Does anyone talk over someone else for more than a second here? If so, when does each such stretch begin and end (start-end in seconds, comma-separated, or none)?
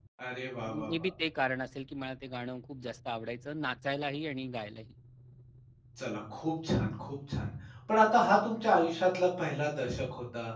none